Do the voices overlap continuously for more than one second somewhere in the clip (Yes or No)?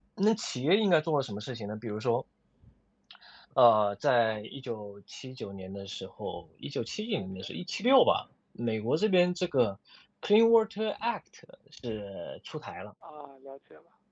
No